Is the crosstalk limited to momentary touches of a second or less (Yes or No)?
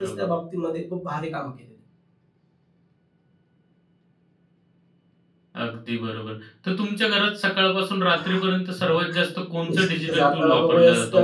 No